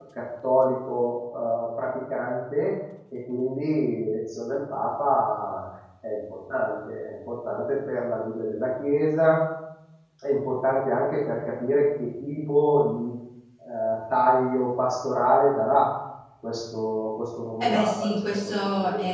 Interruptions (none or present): present